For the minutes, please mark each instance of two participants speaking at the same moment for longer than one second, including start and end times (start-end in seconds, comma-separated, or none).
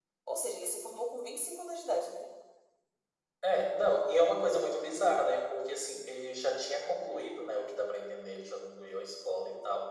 none